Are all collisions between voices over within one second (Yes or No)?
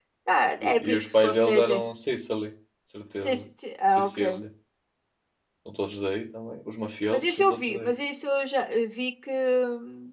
No